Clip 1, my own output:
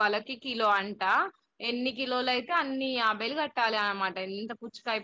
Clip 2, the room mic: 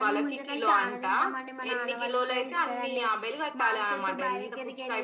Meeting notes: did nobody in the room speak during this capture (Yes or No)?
No